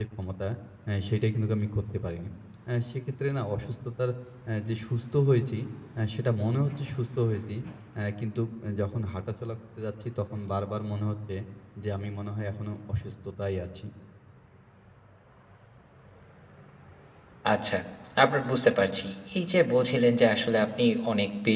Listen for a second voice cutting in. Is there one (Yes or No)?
No